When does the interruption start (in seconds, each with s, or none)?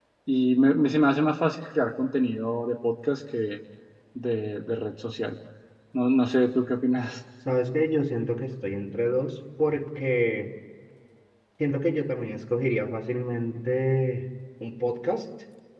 none